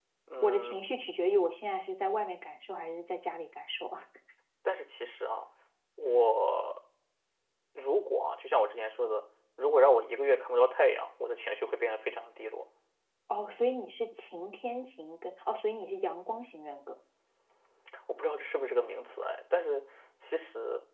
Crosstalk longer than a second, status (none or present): none